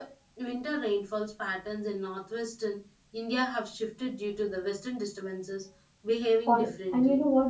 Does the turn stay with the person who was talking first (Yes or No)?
No